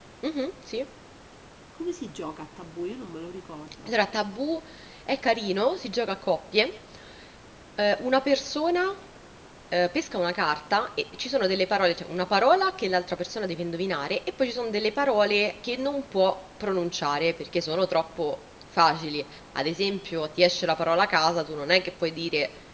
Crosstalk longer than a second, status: none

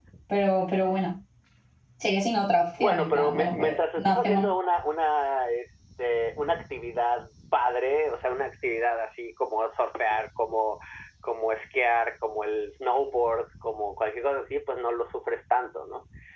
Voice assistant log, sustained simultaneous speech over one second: present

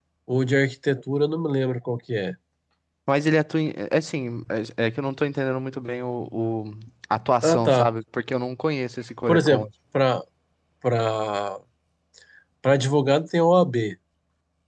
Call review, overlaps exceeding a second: none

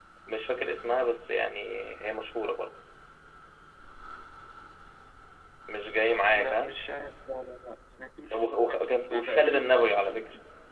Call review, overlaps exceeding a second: present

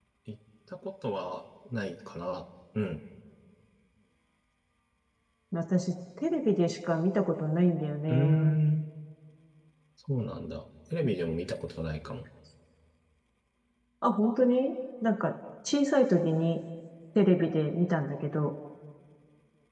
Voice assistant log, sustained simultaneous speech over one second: none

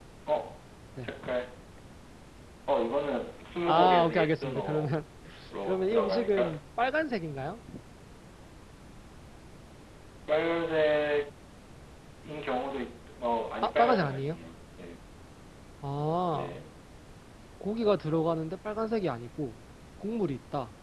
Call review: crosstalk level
present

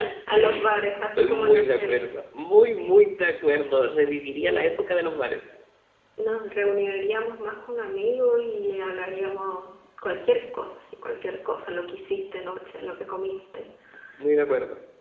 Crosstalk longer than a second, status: present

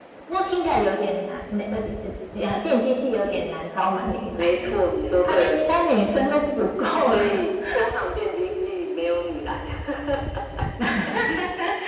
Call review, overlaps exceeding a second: none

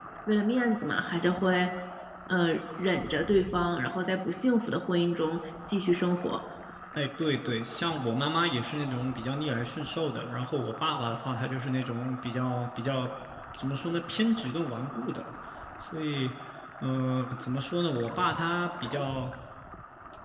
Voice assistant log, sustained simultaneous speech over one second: none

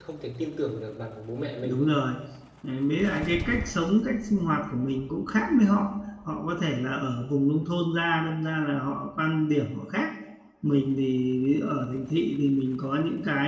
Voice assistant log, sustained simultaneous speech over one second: none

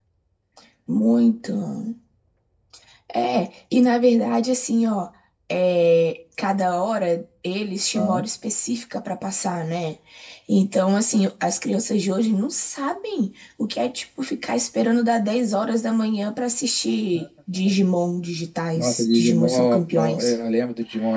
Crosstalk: present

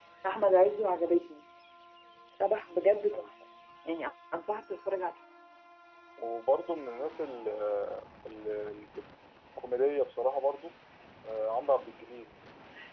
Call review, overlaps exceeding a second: none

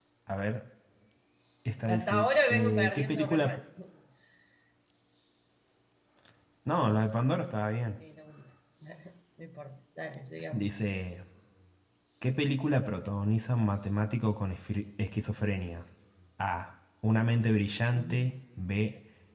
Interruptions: present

